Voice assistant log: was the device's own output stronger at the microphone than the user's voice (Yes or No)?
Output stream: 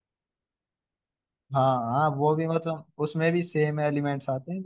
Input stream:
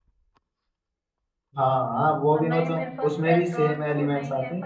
Yes